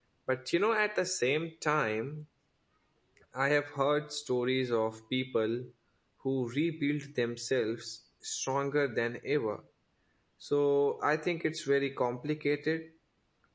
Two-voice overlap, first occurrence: none

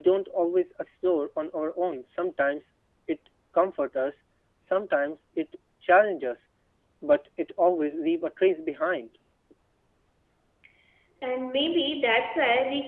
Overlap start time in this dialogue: none

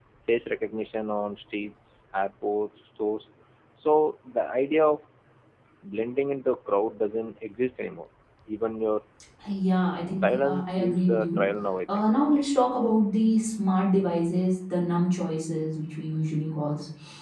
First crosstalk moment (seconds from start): 10.1 s

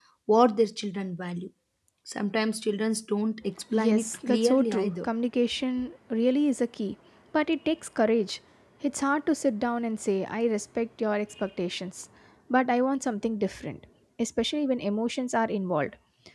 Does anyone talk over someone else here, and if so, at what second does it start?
3.7 s

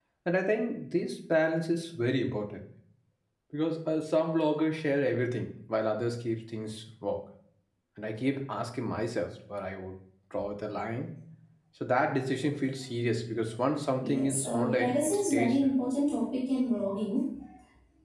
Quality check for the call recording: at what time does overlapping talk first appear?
14.0 s

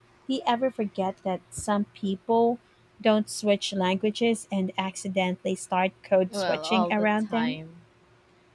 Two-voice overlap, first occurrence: 6.3 s

